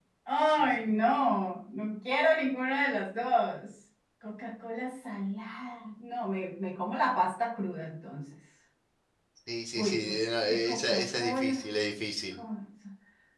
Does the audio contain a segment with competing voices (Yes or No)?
Yes